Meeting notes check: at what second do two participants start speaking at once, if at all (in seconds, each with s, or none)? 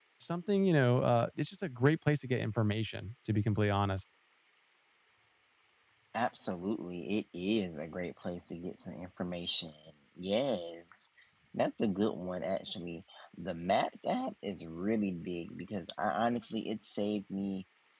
none